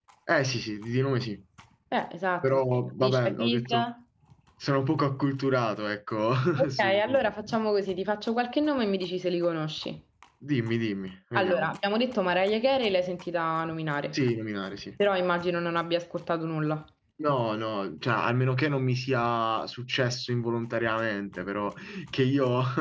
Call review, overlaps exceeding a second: present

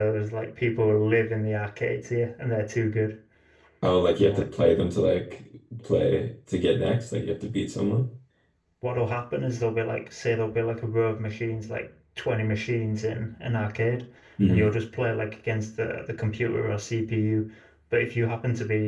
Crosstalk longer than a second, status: none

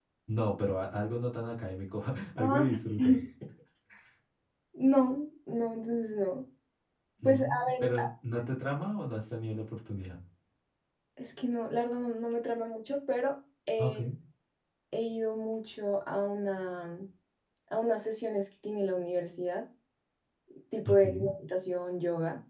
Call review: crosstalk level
present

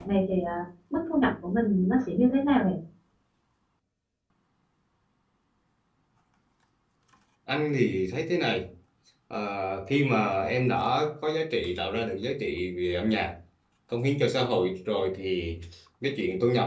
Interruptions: none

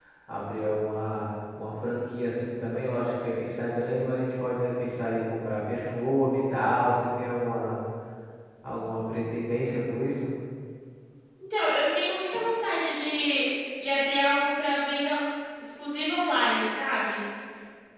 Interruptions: none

